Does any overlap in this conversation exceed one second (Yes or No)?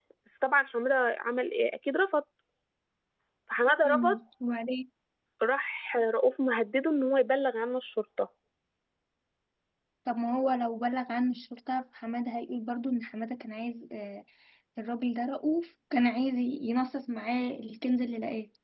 No